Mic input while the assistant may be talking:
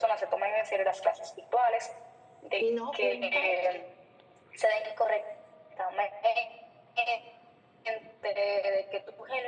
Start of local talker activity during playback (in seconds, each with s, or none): 2.6 s